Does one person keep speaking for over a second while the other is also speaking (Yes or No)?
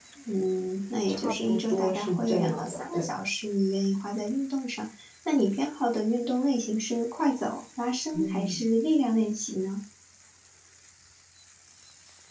Yes